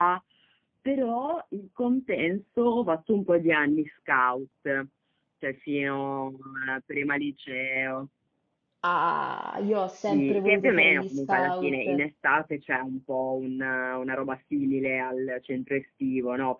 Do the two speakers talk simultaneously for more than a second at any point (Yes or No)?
Yes